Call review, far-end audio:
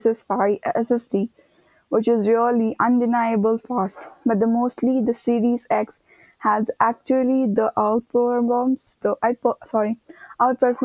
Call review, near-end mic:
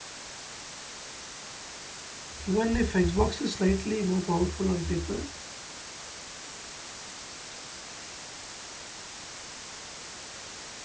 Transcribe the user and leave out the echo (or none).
Even if Xbox is slightly more powerful on paper,